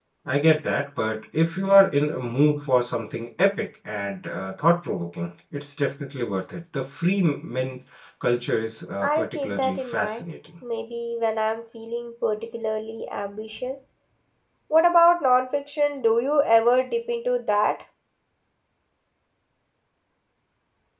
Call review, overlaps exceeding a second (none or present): present